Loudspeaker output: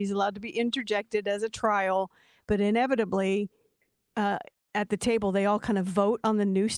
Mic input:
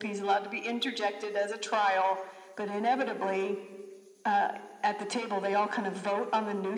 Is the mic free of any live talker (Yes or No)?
Yes